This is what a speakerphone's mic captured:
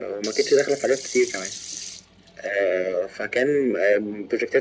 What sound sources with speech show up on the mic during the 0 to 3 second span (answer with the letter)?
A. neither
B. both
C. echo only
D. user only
C